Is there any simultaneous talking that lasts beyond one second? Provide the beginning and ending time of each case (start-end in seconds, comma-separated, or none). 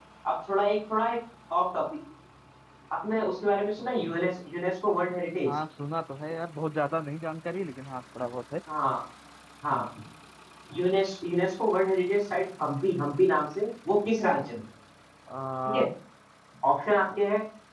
none